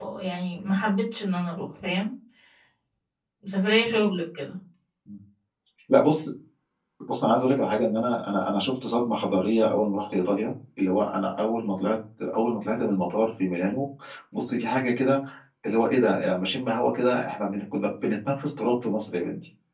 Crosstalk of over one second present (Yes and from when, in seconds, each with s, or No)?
No